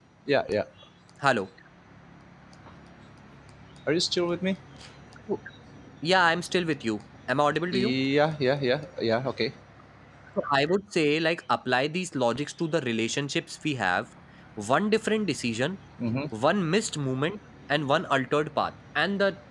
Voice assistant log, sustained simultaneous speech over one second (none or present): none